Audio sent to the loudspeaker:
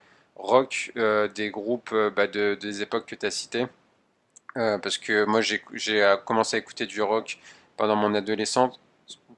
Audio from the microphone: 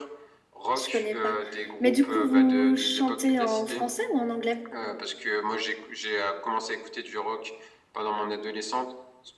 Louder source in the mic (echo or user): user